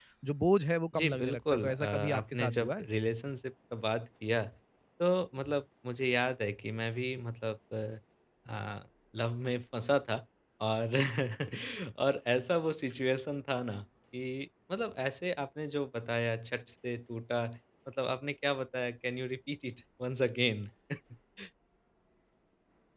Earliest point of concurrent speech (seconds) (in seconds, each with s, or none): 0.9 s